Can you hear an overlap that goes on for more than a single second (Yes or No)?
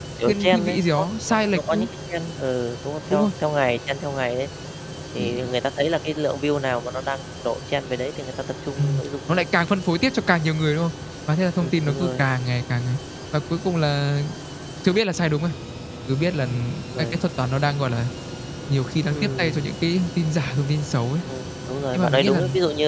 Yes